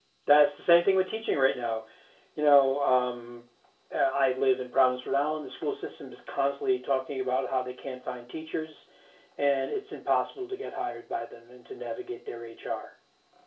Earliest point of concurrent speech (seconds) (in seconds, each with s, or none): none